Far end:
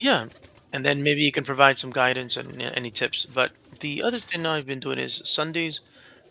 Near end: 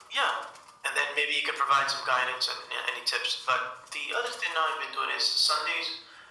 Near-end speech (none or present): none